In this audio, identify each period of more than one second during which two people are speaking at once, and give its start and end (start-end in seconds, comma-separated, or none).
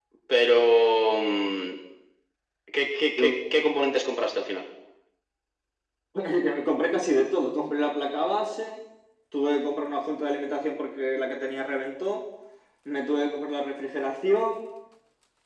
none